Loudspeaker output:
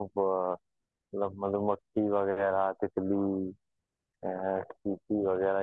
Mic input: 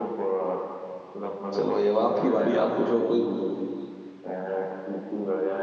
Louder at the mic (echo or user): user